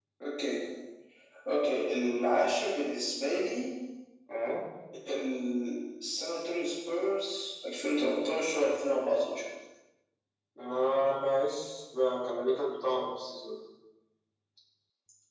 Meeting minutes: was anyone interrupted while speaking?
No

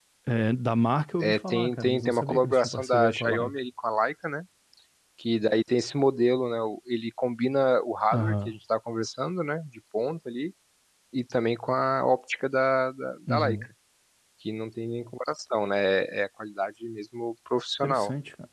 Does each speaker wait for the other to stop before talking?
No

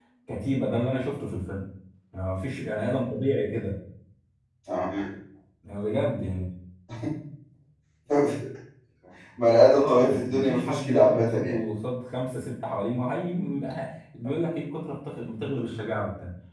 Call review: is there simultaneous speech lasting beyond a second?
Yes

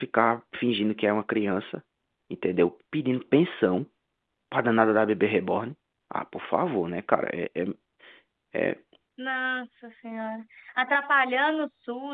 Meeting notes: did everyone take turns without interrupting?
Yes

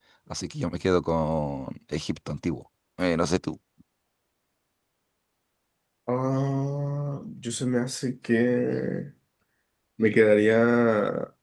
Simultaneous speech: No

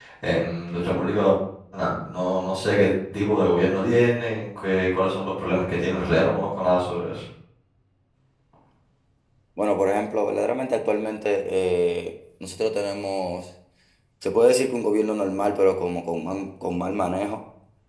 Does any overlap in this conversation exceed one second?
No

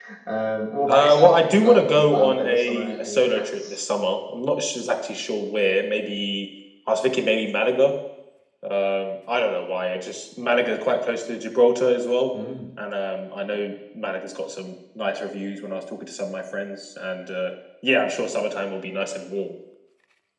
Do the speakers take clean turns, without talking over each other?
No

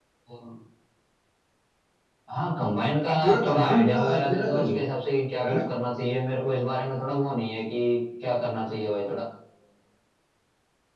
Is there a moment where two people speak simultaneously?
Yes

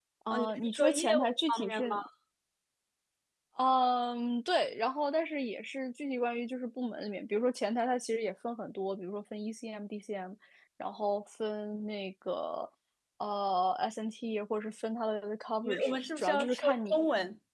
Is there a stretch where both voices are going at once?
Yes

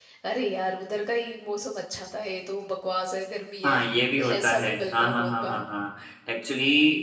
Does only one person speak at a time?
No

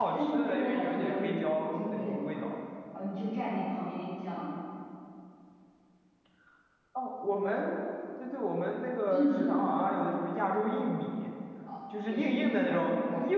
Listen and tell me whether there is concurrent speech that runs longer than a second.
Yes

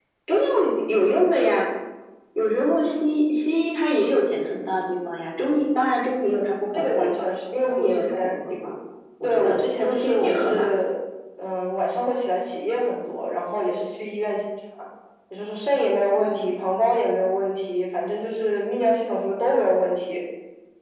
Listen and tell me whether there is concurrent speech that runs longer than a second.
Yes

